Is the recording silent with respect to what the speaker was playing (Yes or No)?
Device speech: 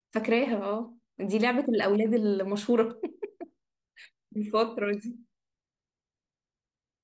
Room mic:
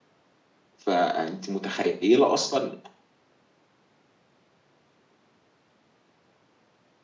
Yes